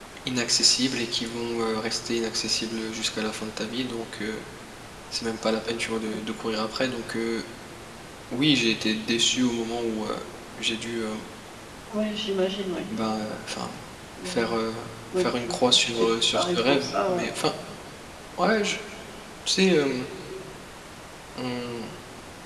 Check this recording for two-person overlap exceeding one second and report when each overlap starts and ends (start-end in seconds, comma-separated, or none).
15.2-17.3